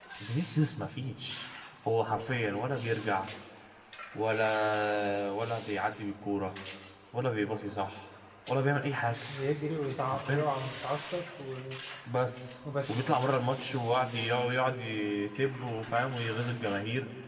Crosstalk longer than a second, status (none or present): none